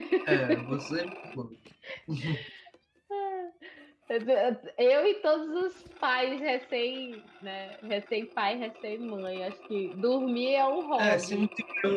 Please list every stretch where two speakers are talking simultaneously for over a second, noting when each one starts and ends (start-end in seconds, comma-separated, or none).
none